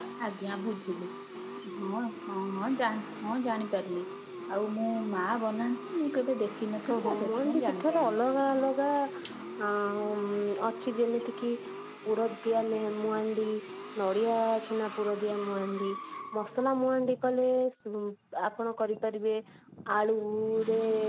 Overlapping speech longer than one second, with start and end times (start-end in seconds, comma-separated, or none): 6.9-8.2